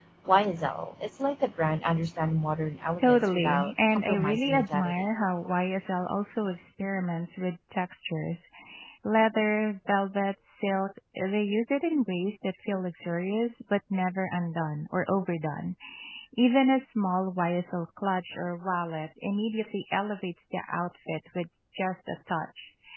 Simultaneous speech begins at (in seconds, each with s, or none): 3.0 s